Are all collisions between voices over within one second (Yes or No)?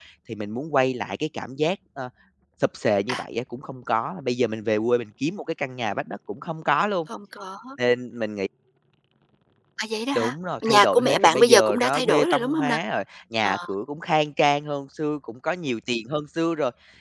No